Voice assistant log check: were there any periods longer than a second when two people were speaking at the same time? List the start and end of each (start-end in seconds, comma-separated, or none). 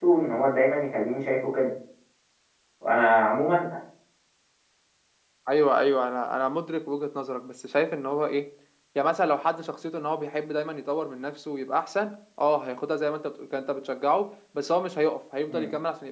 none